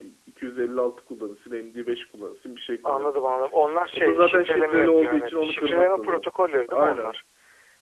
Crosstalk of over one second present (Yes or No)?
Yes